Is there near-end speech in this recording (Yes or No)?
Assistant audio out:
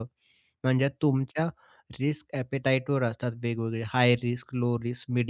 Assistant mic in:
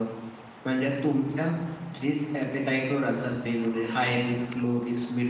No